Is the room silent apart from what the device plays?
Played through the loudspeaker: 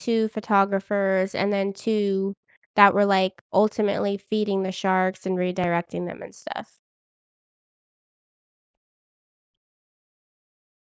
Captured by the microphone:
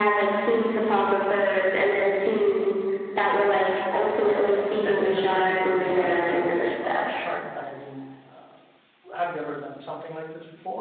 No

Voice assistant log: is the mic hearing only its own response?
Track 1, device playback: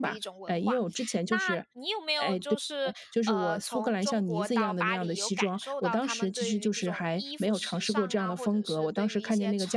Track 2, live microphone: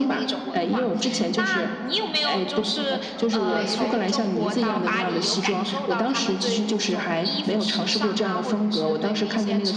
No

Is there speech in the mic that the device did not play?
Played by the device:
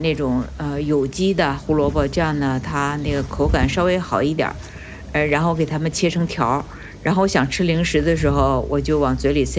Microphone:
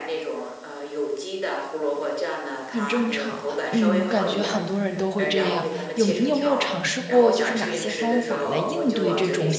Yes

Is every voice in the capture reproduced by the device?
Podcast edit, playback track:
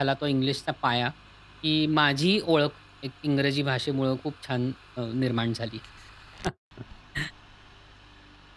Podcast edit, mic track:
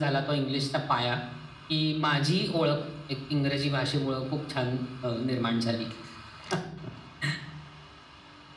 Yes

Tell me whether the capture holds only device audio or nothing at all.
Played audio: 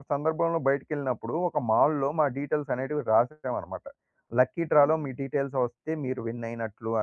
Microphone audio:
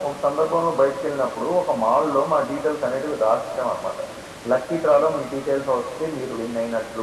Yes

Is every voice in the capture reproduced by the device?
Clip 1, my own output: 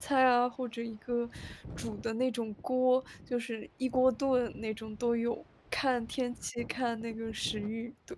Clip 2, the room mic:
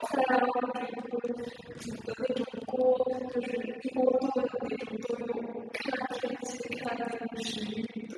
Yes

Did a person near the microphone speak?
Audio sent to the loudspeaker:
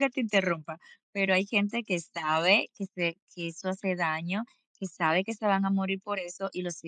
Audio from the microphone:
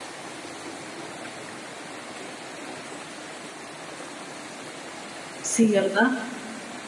Yes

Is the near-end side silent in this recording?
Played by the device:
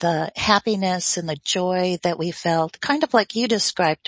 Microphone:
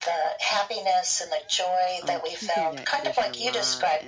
No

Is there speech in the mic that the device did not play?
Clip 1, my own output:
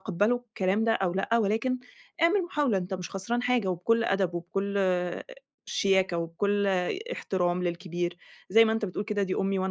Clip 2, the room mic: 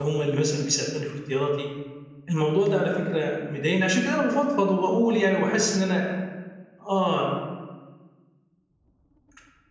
Yes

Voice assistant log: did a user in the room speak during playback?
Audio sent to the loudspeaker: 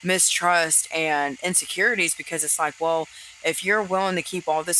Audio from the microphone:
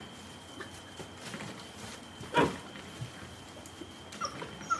No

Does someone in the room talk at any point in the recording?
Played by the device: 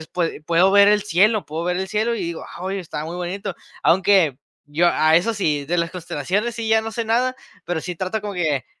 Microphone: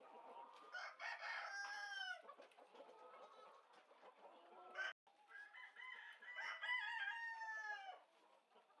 No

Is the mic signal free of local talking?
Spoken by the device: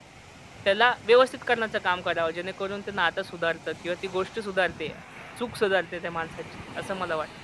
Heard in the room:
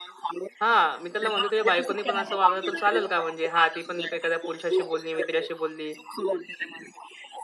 No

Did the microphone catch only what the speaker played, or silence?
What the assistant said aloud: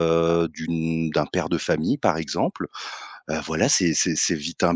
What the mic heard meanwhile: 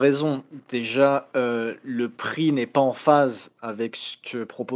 No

